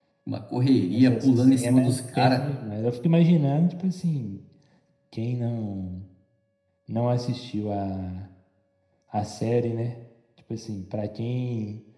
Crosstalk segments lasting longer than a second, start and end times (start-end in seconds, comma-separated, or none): 0.9-2.5